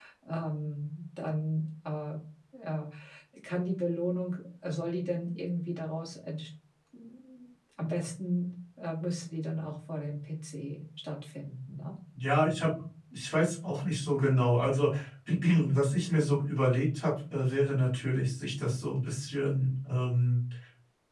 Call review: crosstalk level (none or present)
none